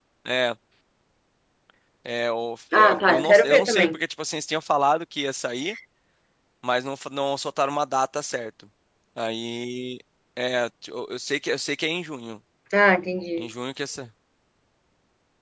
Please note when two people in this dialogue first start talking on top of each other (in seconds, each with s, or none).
2.7 s